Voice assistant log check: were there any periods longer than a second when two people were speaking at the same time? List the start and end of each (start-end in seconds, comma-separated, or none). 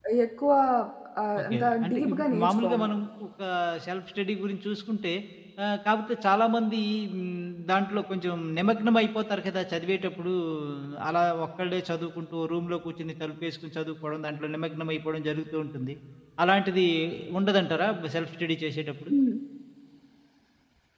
1.4-2.9